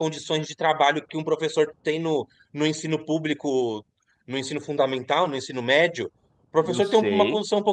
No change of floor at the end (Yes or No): Yes